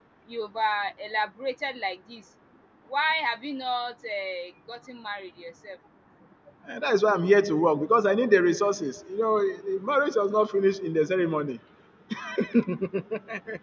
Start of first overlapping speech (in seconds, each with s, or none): none